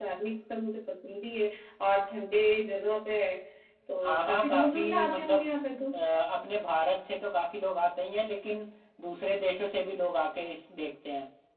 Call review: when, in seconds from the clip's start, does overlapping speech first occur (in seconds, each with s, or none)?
4.0 s